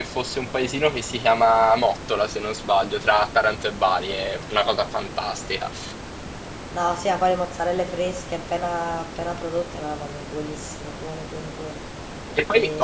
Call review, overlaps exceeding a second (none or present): none